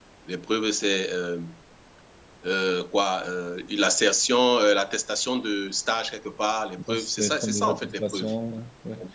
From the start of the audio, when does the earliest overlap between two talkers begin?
6.8 s

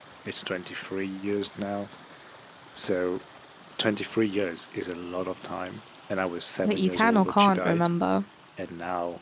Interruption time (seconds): 6.6 s

